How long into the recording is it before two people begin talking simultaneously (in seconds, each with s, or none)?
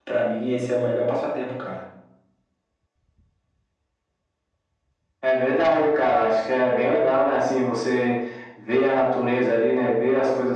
none